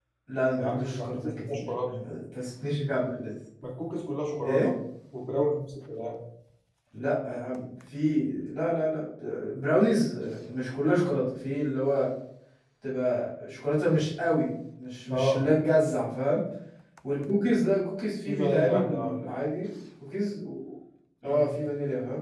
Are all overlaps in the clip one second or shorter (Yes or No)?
No